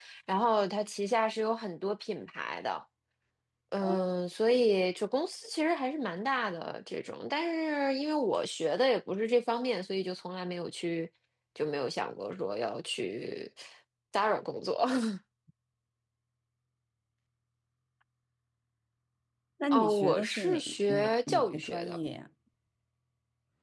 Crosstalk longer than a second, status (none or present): present